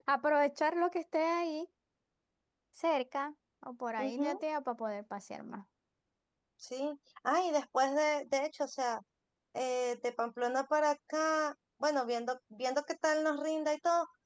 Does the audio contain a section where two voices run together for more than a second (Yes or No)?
No